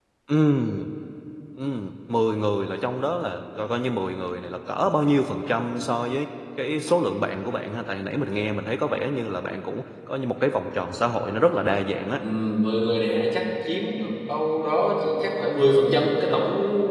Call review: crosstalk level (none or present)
none